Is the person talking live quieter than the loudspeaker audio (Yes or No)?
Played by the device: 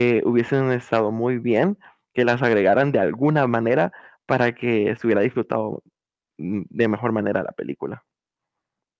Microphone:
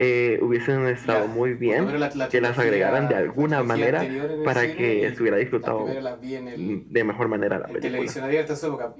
Yes